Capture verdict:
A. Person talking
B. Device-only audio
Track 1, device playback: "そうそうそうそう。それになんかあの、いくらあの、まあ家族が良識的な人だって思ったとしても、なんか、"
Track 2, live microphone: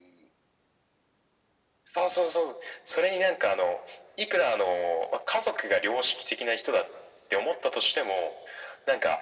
B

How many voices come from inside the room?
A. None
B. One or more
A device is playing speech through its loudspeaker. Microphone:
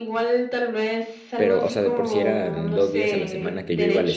B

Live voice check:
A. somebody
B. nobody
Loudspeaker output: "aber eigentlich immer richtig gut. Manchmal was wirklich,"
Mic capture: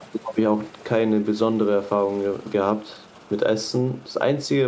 A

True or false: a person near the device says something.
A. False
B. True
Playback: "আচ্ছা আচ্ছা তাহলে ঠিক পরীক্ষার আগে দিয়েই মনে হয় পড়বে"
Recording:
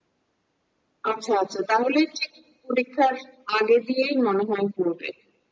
A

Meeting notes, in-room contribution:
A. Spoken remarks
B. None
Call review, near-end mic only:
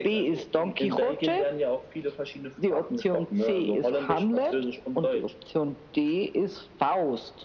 B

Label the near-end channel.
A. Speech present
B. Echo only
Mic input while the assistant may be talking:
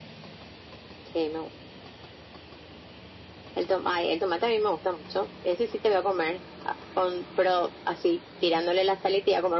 B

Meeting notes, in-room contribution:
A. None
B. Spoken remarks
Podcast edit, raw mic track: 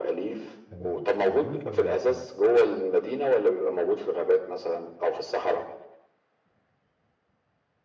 B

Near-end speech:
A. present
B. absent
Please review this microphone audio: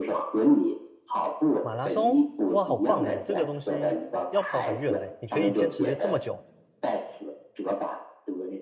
A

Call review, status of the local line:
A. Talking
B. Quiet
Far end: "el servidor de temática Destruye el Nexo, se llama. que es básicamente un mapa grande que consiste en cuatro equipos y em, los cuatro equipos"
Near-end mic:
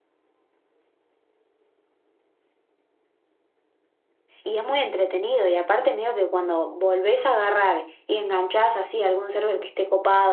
A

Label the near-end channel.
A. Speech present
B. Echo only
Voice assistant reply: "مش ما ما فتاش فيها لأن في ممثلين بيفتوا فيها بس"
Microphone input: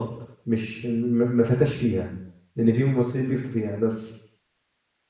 B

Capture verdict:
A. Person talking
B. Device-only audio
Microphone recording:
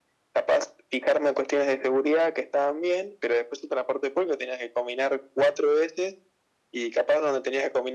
B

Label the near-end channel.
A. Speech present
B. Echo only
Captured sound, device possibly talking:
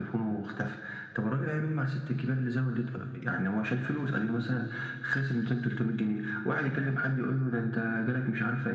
B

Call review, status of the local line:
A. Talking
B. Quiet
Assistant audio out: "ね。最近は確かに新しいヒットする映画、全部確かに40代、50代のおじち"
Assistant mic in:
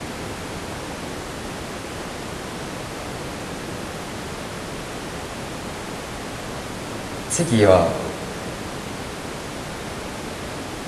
A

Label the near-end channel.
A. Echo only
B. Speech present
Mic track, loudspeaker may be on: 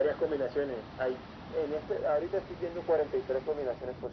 A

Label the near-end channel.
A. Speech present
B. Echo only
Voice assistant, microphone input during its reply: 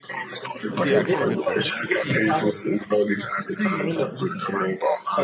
A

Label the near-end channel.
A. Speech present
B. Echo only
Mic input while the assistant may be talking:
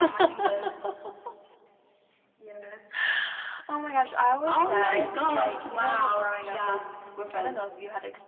A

